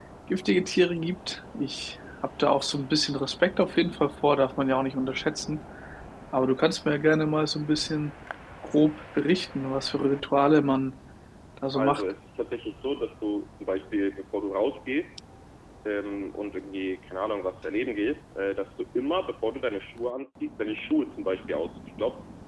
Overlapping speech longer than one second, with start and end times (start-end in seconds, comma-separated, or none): none